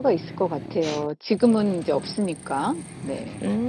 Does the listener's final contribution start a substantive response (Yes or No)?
Yes